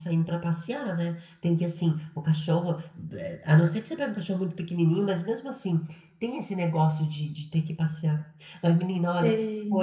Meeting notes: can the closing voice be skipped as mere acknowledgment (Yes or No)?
Yes